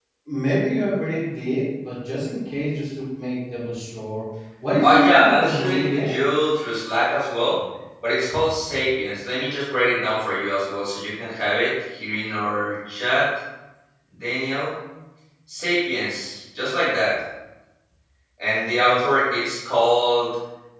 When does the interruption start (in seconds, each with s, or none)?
4.8 s